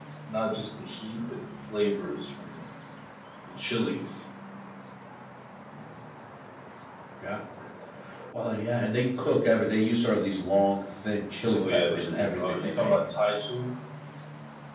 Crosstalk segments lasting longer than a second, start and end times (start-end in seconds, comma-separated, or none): 11.5-13.0